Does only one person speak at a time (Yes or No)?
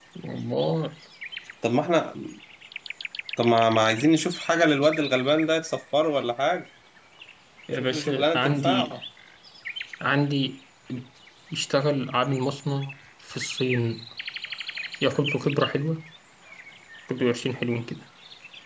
No